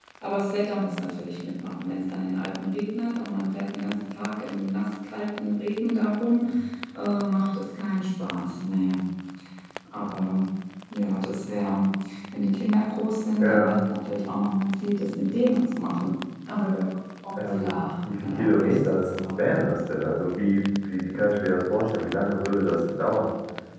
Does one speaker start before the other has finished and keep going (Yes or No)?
Yes